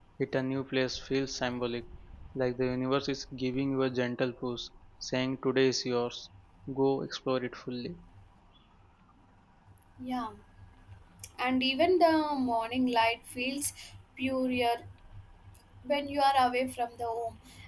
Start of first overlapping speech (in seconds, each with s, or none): none